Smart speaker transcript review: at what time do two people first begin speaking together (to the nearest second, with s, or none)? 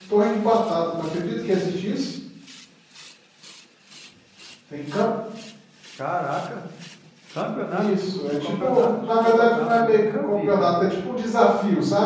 8 s